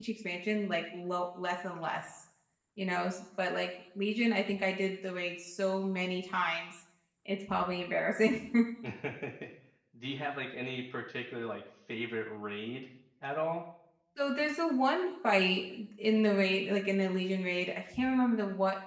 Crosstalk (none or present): none